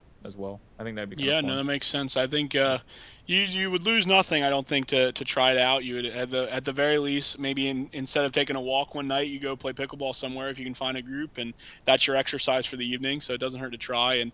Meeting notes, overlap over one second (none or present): none